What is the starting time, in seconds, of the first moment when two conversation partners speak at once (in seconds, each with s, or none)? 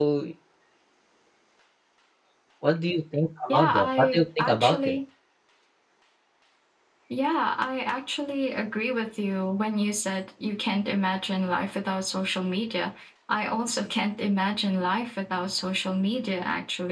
3.5 s